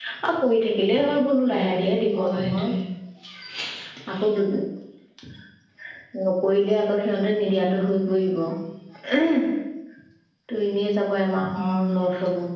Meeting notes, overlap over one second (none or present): present